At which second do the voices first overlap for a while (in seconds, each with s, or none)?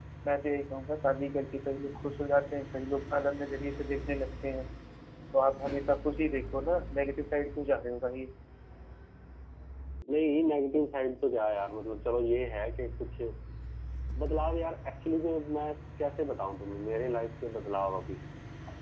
none